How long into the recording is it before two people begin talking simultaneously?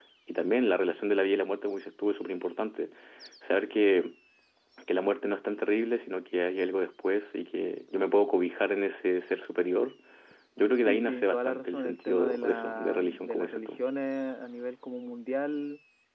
11 s

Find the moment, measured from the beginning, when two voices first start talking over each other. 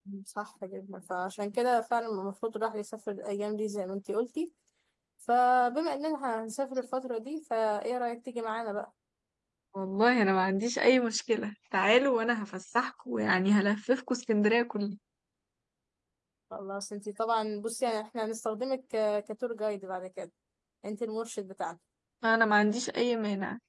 none

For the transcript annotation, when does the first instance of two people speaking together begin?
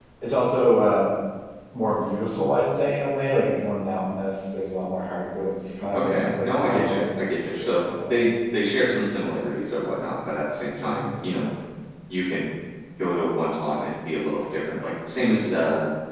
6 s

